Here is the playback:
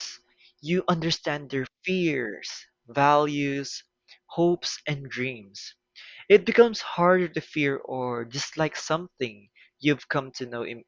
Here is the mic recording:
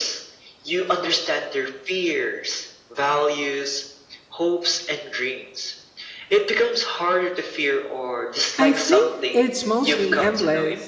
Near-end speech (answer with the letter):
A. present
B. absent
A